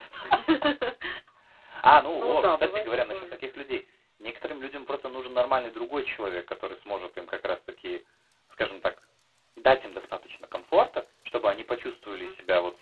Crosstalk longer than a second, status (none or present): present